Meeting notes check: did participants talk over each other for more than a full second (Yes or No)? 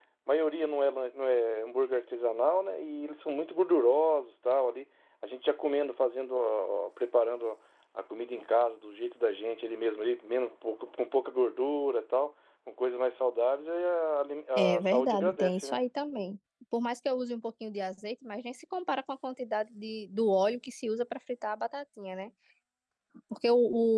Yes